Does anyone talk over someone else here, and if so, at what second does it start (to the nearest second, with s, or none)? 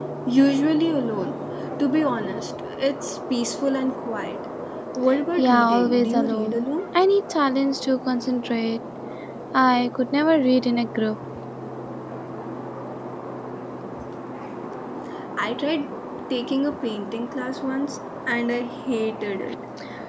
5 s